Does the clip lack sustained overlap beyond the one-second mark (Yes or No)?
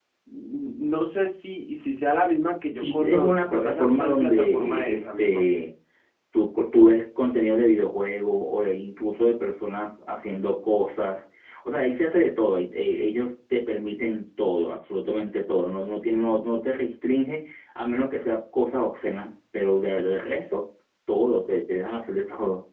No